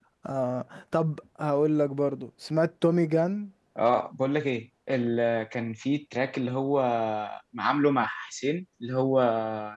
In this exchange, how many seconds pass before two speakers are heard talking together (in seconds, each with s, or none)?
none